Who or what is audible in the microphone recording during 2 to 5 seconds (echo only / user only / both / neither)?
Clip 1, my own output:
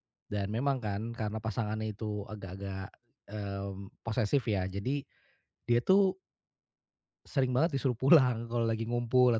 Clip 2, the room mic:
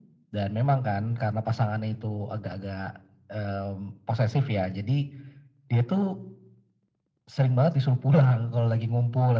echo only